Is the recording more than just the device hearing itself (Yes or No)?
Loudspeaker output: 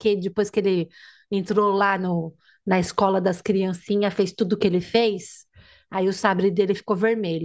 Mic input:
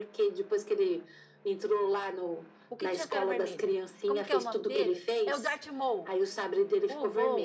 Yes